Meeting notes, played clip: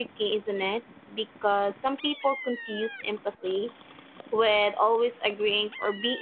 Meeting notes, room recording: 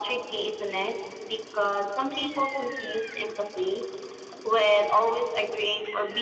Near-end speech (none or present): none